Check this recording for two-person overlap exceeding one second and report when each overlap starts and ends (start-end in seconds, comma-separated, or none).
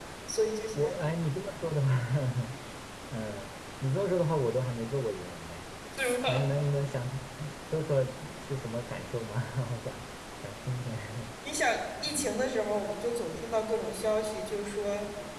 none